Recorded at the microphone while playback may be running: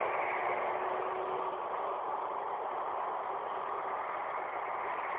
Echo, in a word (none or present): none